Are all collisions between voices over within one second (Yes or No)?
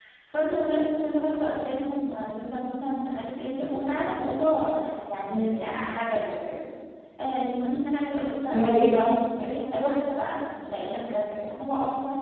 Yes